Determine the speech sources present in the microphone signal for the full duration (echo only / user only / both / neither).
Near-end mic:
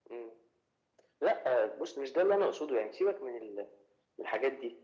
echo only